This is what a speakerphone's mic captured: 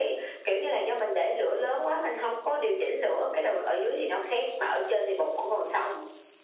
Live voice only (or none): none